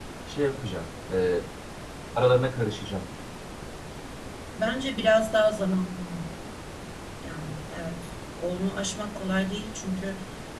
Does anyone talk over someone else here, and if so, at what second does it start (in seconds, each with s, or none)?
none